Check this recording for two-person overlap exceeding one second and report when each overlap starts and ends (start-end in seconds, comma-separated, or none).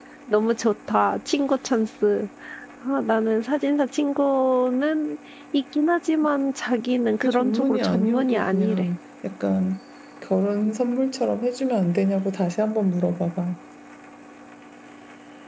7.2-8.9